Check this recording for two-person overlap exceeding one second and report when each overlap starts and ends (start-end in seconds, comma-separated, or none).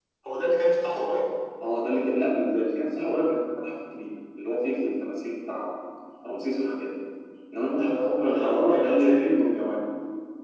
7.8-9.6